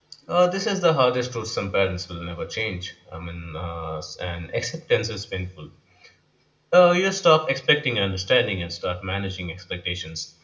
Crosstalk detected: No

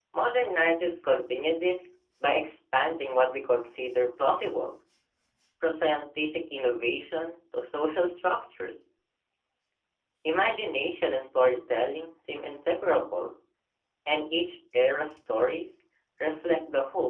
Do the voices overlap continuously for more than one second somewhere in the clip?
No

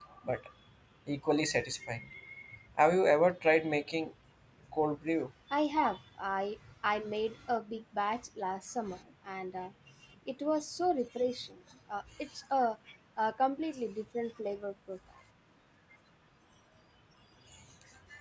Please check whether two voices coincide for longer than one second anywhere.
No

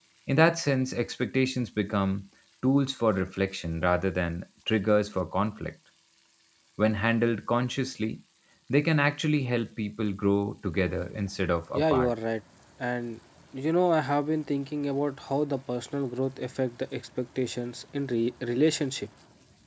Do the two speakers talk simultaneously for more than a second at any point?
No

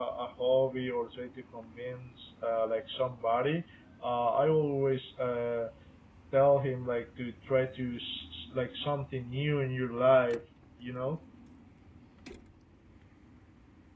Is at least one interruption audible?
No

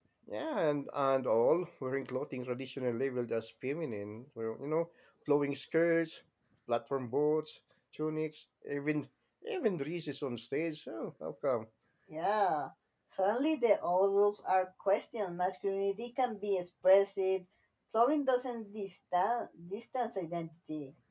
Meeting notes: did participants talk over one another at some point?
No

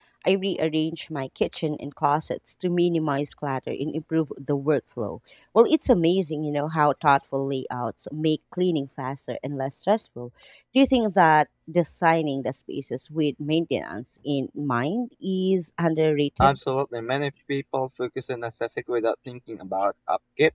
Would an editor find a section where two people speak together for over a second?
No

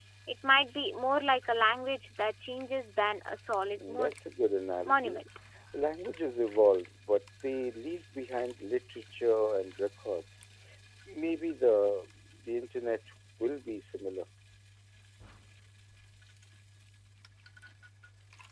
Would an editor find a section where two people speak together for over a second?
No

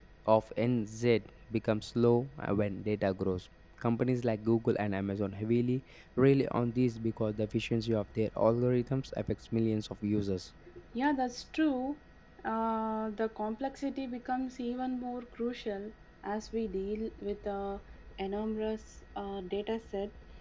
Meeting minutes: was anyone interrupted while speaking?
No

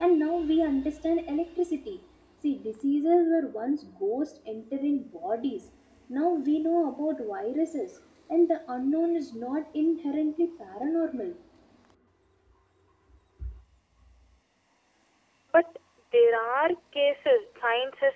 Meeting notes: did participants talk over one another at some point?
No

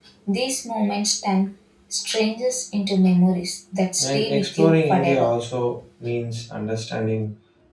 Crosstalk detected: Yes, from 4.0 s

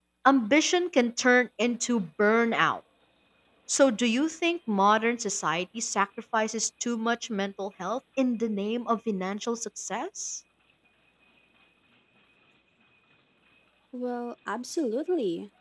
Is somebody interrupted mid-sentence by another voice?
No

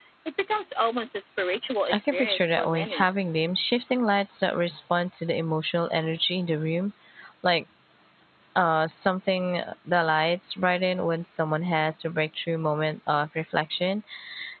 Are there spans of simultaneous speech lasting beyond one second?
Yes, from 1.9 s

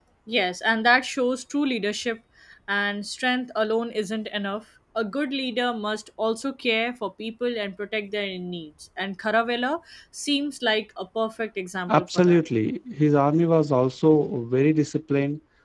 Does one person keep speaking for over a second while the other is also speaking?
No

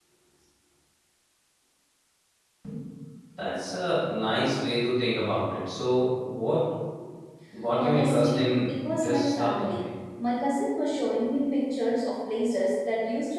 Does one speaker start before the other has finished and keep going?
Yes, from 7.8 s

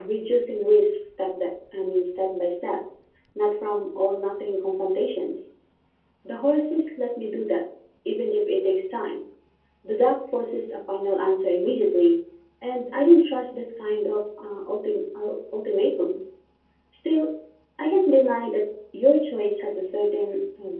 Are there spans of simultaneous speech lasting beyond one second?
No

